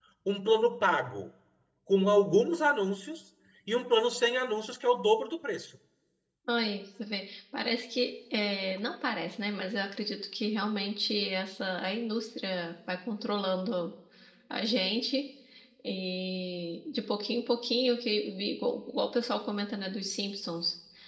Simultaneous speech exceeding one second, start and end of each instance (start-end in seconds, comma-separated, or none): none